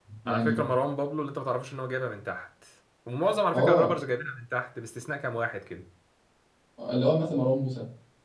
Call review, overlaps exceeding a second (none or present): none